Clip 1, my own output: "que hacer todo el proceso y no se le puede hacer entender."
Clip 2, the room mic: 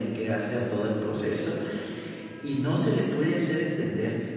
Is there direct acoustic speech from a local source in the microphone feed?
No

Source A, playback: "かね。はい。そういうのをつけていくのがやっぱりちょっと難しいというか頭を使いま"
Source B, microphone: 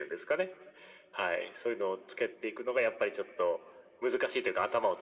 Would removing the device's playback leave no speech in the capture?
Yes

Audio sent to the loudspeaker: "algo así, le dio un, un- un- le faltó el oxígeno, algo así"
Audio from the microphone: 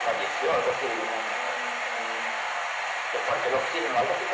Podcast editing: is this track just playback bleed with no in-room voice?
Yes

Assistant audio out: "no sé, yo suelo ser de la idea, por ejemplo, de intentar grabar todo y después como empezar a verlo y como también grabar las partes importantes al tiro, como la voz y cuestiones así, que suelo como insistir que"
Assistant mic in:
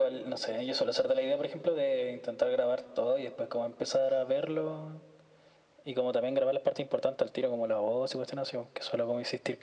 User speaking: No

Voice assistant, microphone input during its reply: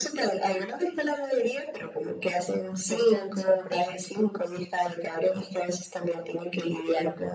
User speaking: Yes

